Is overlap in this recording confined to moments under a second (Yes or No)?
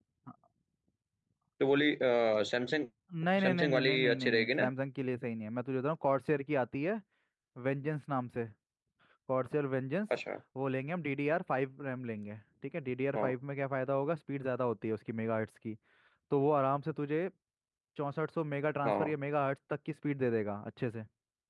No